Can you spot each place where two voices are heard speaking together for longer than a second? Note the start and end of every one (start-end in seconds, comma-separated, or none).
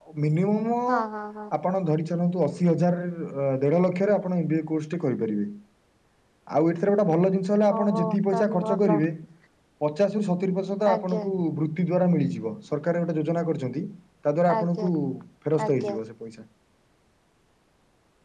7.8-9.0